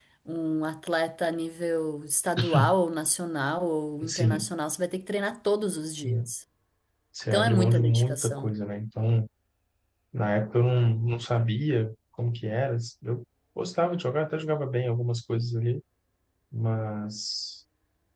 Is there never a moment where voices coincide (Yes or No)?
No